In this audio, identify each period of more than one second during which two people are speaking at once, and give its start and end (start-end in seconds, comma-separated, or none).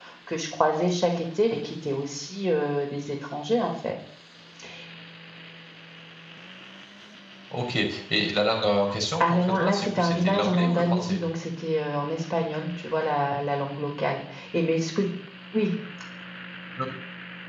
9.2-11.2